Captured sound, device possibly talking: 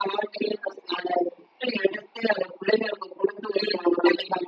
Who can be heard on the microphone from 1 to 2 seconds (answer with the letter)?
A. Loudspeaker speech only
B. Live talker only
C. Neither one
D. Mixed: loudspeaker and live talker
A